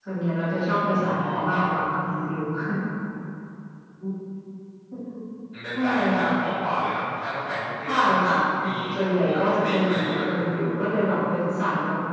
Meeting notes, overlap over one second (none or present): present